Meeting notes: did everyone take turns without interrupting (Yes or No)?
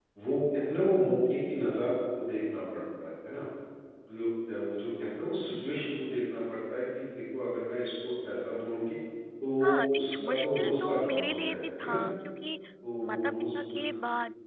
No